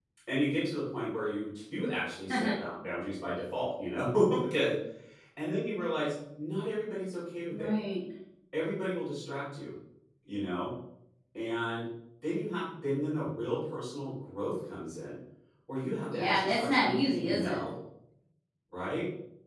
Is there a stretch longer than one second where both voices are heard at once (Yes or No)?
Yes